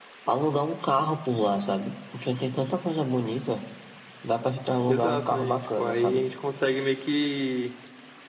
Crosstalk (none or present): present